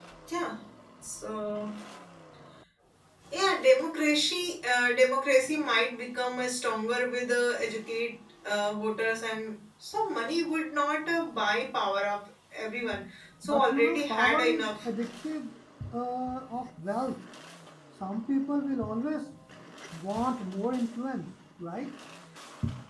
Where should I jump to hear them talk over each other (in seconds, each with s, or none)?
13.4 s